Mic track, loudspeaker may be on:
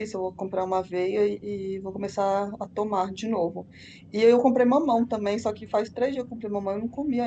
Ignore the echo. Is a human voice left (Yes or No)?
Yes